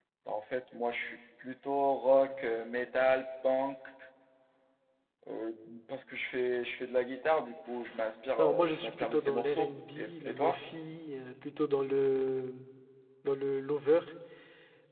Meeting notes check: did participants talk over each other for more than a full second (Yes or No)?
Yes